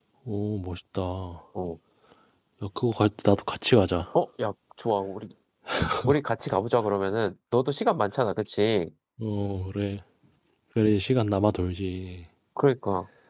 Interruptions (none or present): none